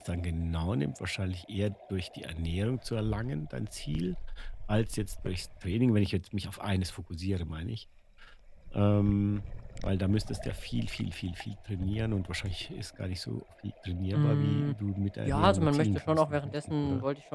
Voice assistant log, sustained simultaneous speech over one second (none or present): present